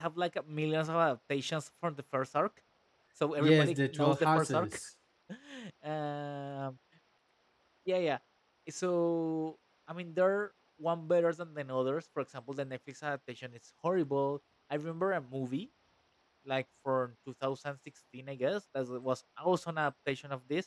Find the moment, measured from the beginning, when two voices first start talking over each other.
3 s

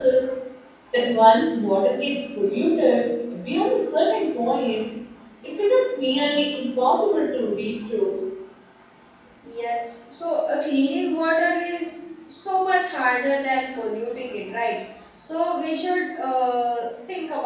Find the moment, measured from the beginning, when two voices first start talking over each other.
none

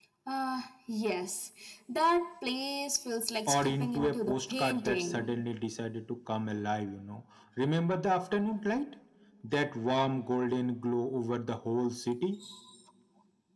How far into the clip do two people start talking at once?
3 s

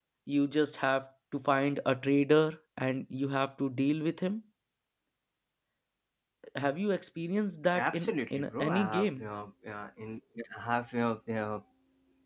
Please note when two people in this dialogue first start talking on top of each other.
8 s

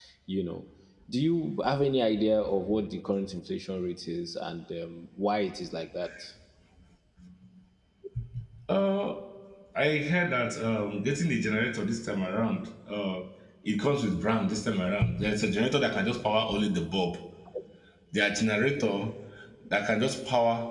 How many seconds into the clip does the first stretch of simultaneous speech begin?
none

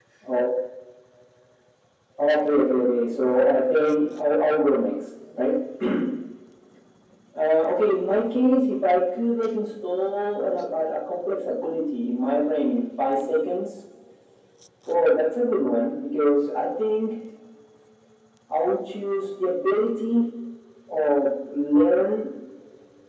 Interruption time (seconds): none

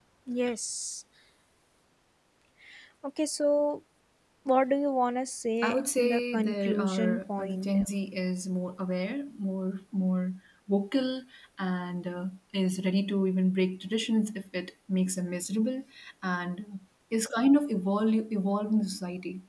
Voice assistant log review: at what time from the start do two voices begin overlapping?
6 s

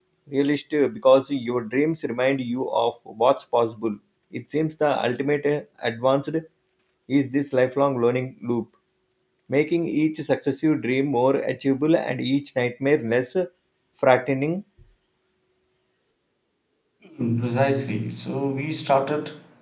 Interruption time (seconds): none

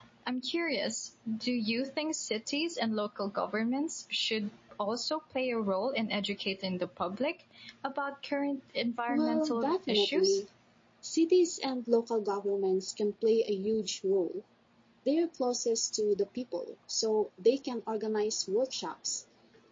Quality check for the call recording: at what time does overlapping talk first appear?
9 s

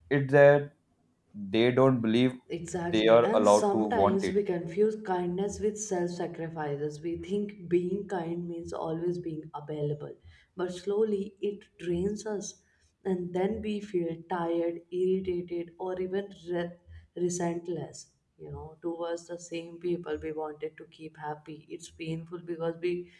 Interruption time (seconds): 3 s

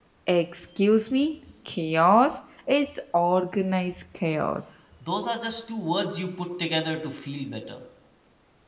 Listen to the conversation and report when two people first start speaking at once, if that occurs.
none

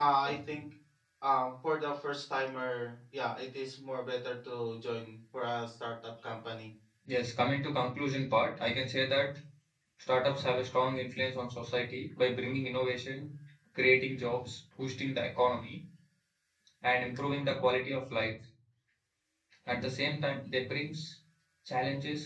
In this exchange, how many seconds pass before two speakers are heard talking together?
none

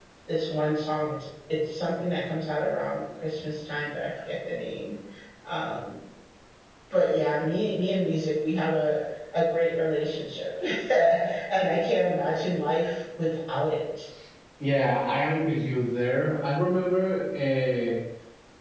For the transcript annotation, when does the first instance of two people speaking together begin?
none

